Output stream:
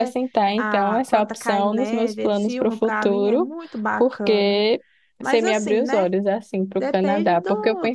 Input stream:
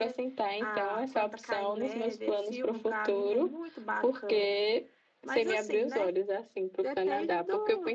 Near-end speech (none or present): none